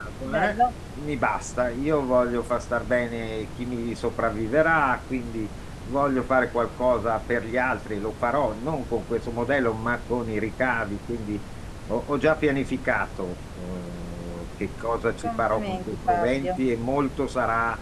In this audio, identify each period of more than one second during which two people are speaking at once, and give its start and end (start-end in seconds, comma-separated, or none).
15.2-16.5